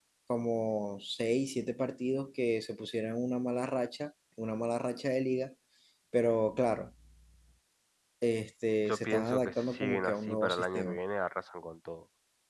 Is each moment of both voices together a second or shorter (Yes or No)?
No